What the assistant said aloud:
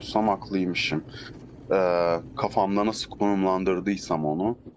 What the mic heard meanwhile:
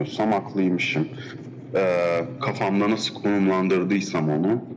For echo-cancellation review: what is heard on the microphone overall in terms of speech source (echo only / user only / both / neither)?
echo only